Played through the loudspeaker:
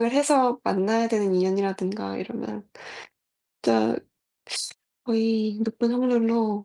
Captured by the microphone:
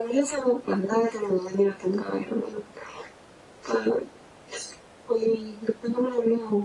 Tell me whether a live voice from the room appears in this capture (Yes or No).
No